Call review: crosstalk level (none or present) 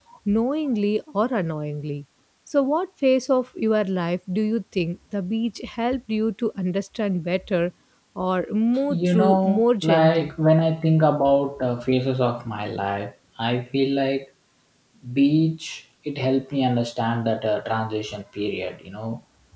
present